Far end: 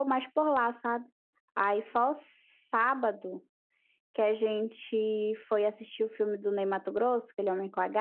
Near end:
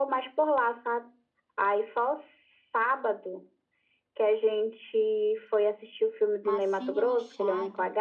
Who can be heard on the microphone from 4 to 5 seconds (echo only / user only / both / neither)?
echo only